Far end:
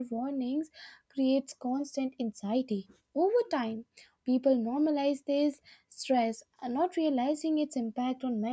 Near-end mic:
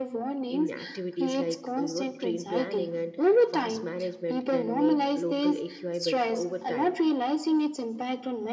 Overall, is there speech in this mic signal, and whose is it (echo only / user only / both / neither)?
both